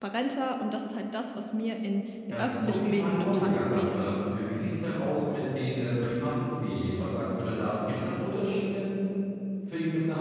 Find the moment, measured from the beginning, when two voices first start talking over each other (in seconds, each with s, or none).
2.3 s